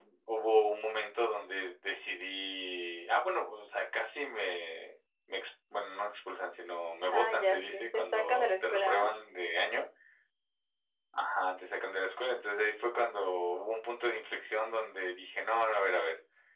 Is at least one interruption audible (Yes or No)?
Yes